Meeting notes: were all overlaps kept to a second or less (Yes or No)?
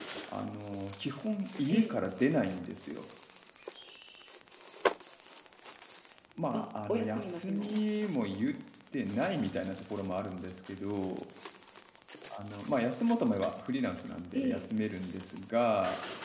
No